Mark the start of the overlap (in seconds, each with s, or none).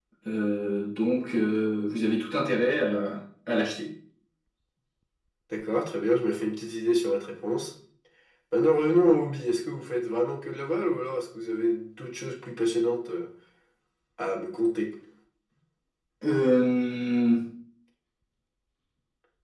none